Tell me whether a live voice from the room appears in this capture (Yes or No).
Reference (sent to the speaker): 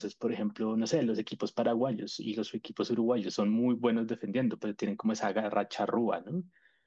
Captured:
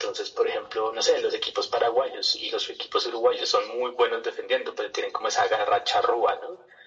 No